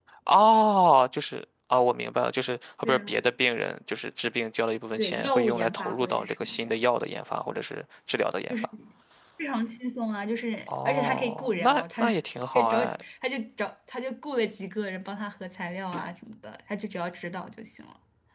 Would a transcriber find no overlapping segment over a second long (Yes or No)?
No